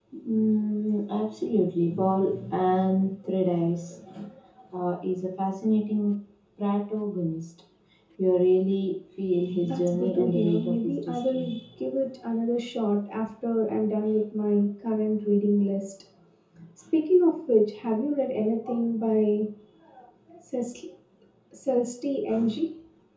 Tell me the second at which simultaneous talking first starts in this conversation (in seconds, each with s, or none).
9.4 s